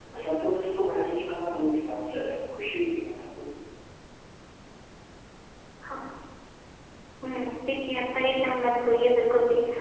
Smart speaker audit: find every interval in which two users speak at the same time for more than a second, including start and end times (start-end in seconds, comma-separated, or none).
none